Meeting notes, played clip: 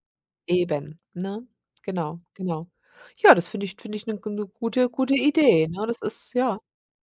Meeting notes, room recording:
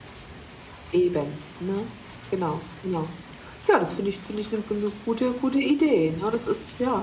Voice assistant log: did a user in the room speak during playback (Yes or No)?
No